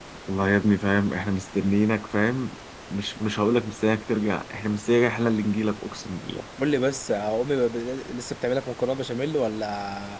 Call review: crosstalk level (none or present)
none